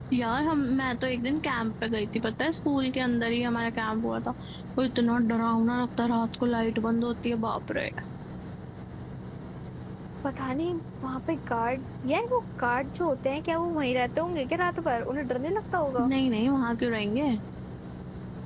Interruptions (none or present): none